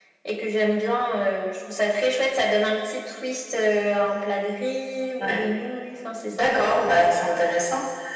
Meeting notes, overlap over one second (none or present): none